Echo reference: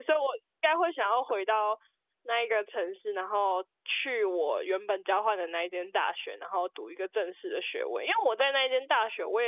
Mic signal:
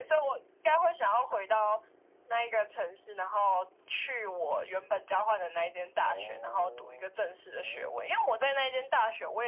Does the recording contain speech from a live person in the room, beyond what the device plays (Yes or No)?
Yes